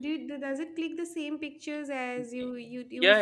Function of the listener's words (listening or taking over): taking over